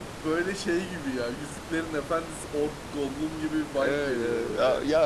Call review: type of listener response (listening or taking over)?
taking over